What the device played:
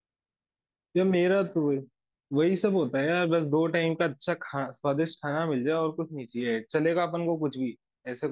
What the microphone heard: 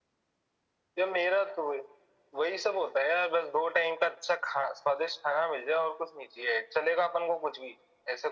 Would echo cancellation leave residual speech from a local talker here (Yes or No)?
No